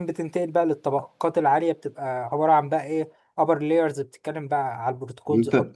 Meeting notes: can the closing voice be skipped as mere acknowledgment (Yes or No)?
No